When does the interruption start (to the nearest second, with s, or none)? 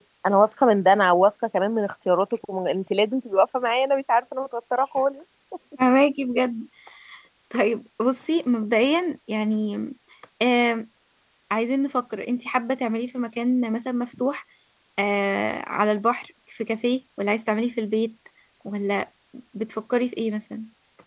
none